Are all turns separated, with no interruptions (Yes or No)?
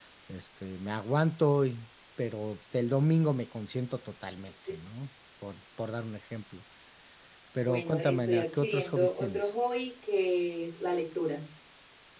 No